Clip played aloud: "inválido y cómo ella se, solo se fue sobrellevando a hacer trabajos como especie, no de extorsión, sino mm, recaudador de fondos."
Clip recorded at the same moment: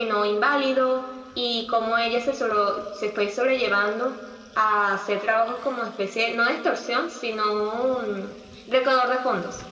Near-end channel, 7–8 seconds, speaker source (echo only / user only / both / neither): echo only